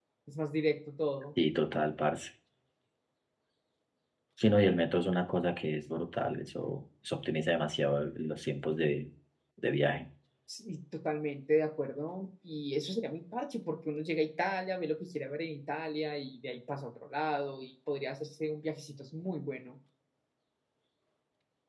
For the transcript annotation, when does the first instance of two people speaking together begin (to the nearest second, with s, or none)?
none